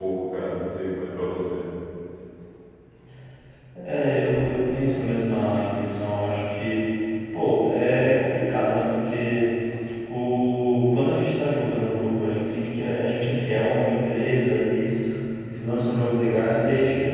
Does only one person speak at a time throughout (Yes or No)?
Yes